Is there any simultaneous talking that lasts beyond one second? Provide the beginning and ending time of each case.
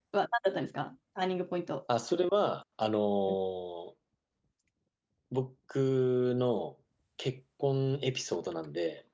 none

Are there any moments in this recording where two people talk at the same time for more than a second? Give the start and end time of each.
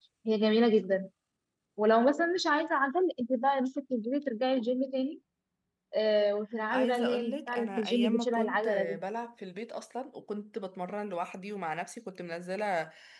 6.7-9.0

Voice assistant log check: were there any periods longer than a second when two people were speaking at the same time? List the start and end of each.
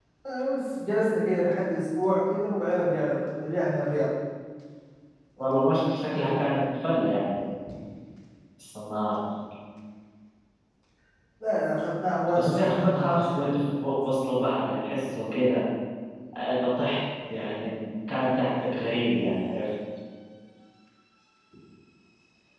12.4-13.9

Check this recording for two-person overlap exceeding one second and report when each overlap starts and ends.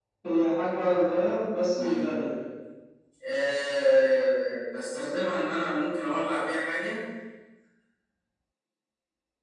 none

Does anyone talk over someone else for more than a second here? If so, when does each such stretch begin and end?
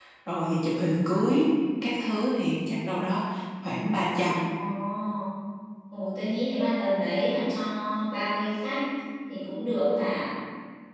none

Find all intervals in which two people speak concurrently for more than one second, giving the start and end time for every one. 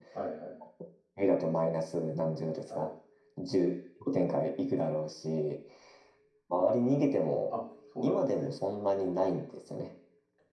none

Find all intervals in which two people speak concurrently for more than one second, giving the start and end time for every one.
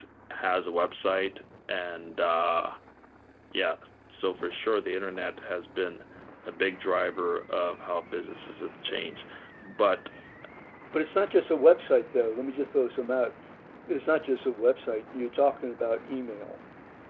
none

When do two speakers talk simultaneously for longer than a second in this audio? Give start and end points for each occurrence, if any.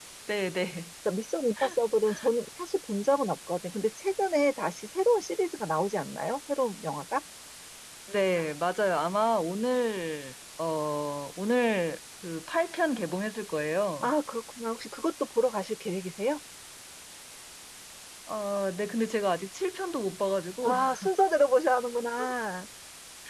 none

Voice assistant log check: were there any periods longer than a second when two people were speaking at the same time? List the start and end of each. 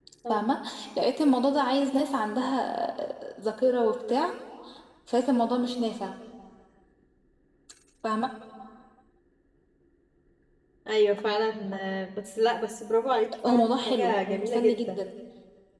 13.4-15.0

